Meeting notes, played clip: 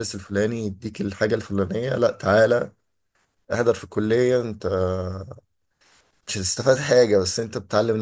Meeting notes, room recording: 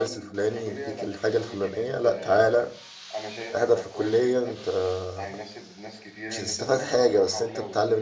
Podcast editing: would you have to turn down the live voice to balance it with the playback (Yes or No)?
No